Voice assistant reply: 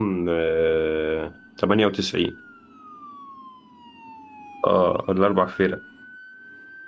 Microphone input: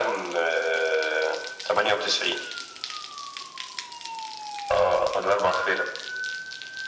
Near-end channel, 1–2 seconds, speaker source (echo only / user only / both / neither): echo only